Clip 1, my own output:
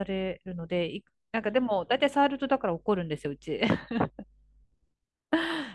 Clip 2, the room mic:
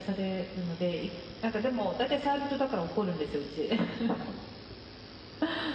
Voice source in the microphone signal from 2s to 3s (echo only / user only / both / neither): echo only